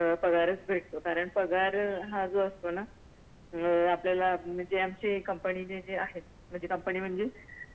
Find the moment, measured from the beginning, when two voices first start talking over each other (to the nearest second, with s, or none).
none